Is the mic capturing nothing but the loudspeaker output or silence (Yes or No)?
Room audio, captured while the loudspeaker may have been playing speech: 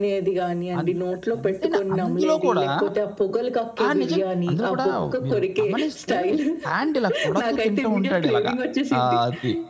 No